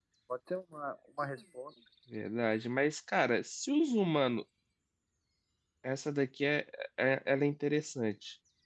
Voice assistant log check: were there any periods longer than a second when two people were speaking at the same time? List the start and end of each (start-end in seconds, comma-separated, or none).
none